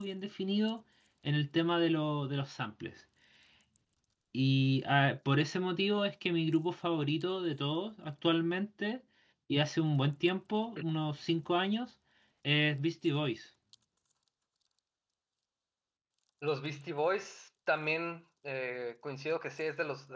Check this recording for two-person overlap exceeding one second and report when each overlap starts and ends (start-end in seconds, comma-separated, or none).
none